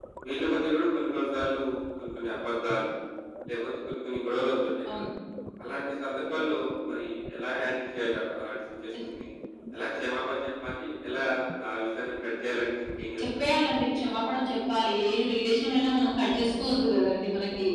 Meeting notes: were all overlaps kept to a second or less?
Yes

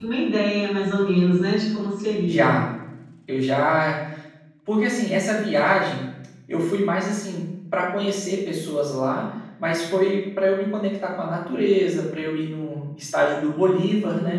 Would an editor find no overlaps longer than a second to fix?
Yes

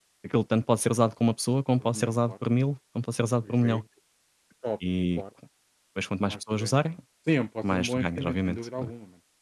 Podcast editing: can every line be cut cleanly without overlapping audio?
No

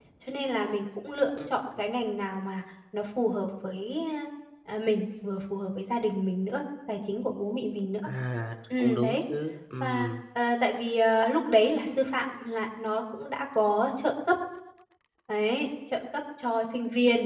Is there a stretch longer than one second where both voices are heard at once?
No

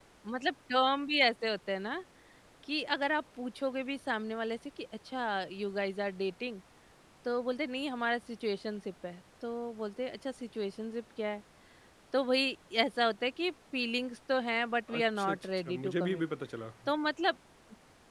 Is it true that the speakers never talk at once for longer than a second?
No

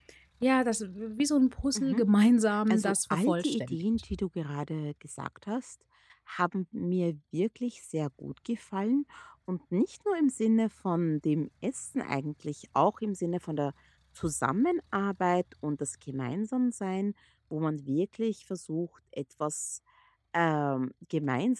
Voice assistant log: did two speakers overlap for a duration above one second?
Yes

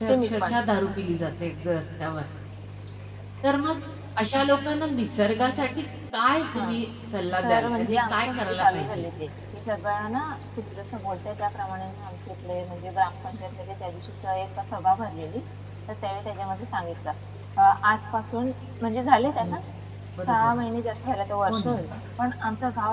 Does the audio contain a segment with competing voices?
Yes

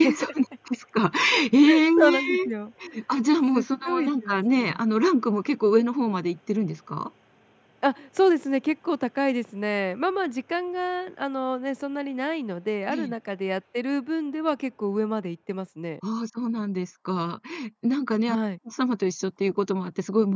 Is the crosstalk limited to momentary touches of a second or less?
No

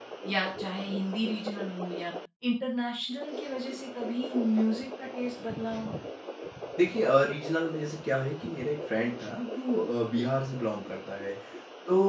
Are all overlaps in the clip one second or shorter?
Yes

